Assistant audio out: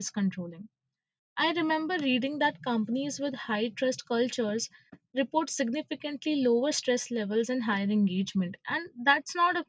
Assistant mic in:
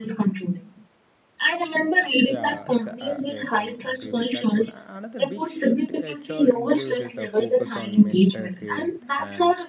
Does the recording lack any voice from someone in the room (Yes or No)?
No